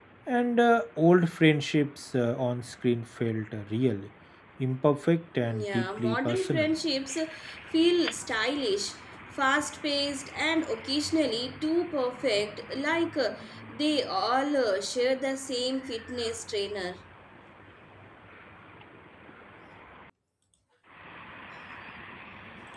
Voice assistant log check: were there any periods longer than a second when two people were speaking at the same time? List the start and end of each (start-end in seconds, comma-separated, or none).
5.4-6.7